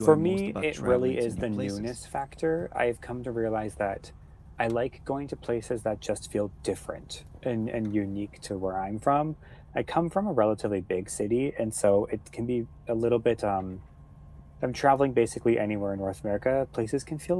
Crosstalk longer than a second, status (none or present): present